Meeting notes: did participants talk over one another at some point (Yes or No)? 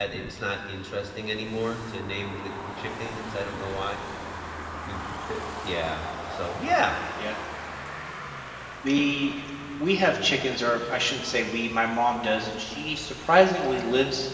No